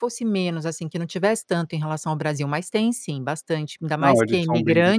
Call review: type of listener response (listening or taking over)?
taking over